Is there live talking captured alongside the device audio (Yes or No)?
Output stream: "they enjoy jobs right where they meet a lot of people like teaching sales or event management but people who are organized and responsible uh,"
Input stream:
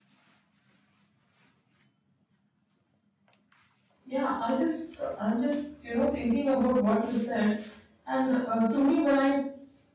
Yes